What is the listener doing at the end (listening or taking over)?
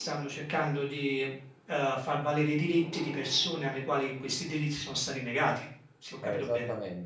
taking over